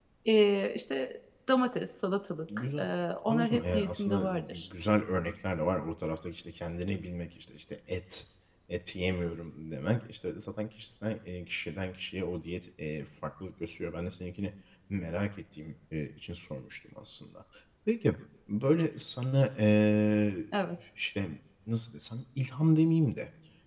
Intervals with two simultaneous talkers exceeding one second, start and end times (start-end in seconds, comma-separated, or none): 3.3-4.7